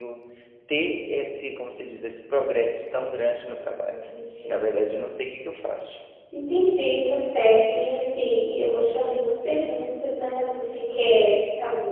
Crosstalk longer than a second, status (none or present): none